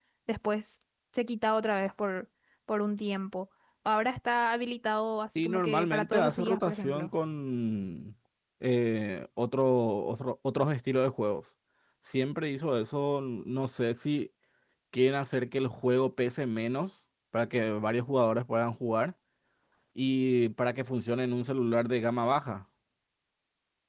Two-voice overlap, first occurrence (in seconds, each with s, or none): 5.4 s